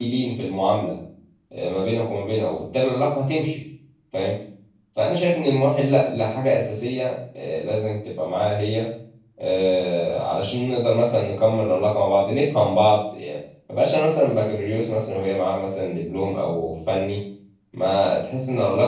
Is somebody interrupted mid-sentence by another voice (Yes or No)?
No